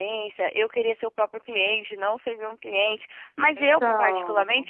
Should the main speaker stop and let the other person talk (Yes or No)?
No